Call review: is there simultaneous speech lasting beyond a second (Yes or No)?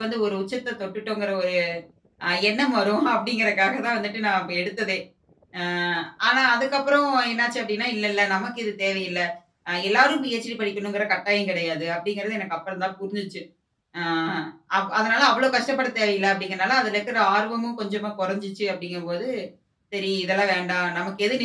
No